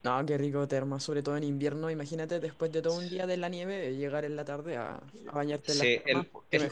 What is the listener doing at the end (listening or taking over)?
taking over